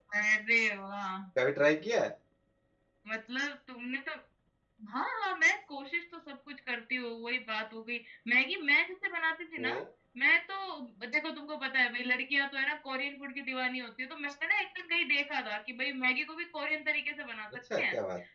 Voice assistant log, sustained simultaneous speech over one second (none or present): none